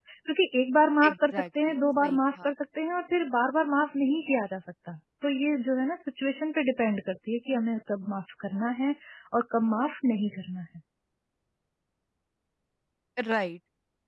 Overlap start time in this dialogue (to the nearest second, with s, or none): 1 s